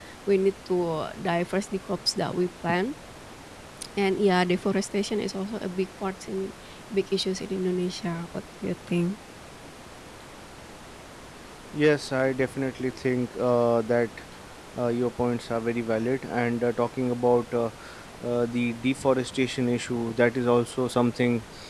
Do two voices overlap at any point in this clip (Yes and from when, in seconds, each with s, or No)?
No